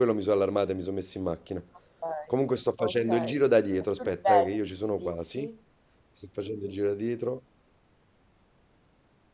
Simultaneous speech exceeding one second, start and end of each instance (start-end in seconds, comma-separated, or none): 4.0-5.4